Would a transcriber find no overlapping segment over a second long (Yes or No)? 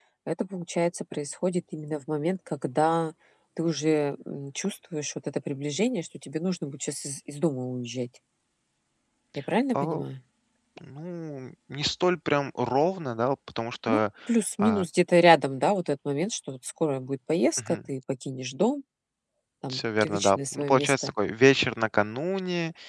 No